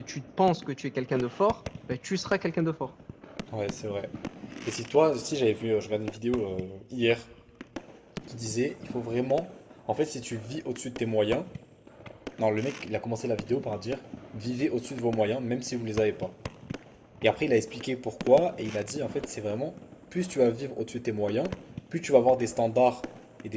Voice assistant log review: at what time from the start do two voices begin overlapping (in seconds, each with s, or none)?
none